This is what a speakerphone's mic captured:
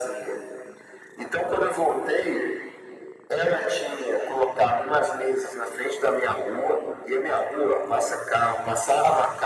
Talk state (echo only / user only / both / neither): echo only